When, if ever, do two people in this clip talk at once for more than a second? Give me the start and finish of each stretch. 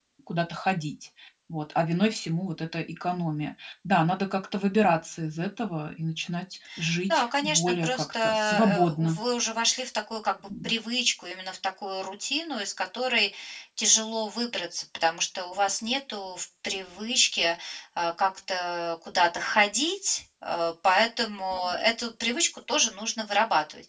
7.1-9.2

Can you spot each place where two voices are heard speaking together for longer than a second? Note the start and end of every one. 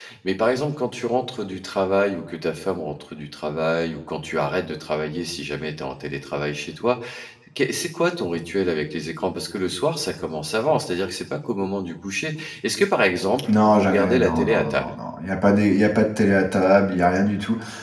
13.5-14.9

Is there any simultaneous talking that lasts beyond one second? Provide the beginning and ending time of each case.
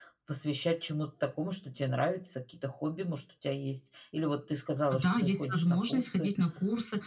4.9-6.3

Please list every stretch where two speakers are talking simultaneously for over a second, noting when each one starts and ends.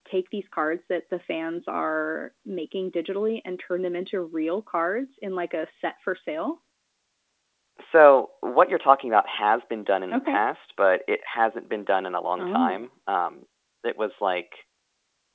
none

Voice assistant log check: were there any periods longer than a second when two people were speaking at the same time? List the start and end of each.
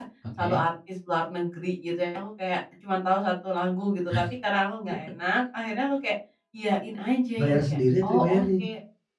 7.4-8.7

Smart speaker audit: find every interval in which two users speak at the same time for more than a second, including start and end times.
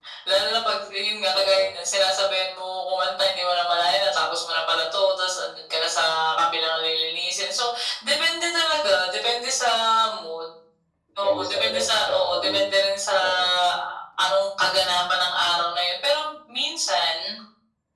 11.2-12.6

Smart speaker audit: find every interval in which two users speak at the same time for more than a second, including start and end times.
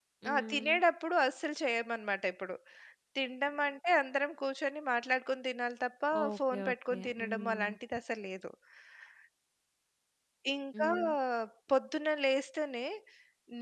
6.2-7.8

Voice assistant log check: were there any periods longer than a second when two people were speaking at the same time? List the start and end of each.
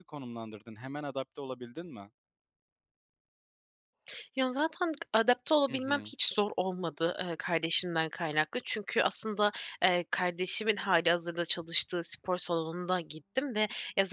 none

